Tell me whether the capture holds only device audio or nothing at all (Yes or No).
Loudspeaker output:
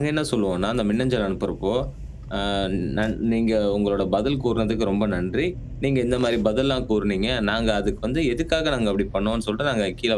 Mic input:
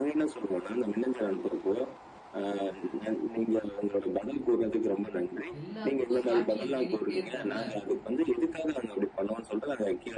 No